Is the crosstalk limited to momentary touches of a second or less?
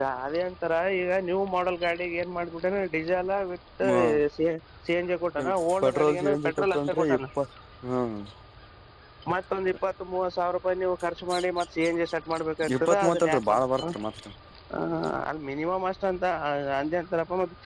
No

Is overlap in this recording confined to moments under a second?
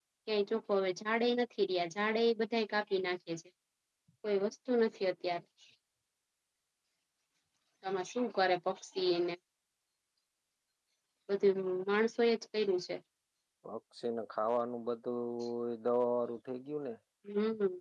Yes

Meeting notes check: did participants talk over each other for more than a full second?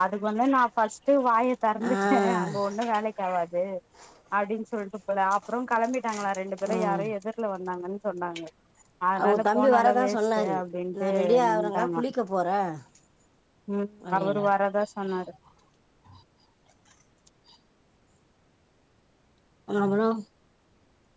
Yes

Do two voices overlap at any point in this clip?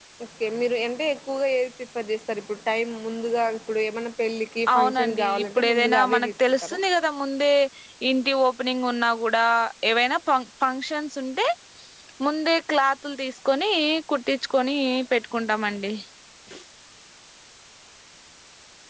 Yes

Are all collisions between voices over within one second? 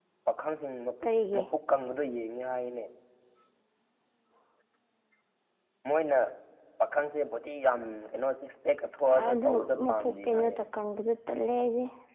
No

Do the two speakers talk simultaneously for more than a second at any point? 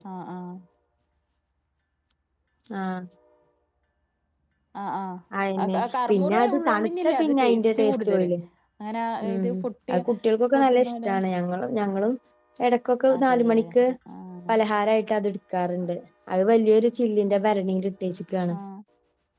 Yes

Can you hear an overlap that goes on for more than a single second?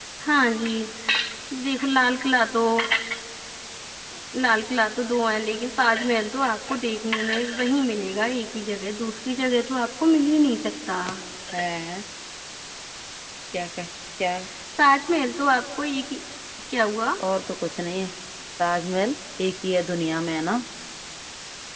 No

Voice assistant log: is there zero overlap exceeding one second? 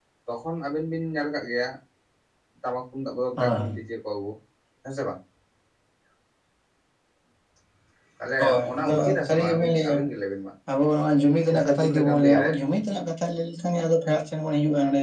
No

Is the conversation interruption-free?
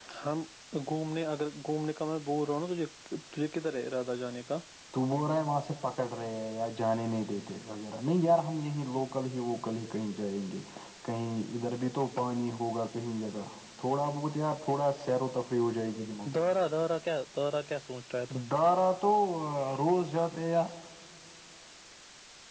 Yes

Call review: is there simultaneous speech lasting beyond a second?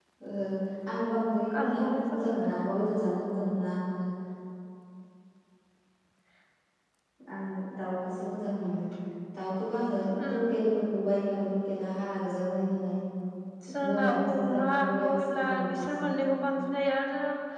Yes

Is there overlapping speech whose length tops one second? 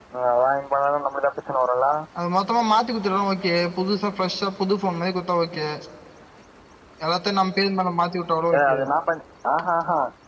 No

